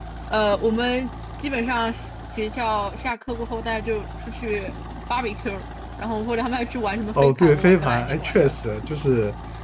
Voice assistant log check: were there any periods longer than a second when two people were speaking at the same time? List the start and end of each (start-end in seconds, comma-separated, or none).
7.2-8.5